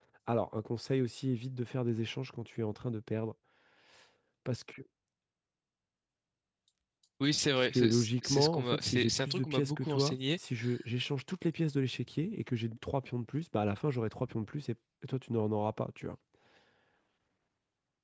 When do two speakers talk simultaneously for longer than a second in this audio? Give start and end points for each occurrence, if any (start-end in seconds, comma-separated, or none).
7.6-10.2